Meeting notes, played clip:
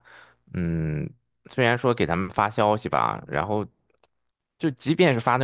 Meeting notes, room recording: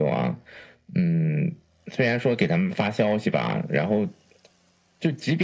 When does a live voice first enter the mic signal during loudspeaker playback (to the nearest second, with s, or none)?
none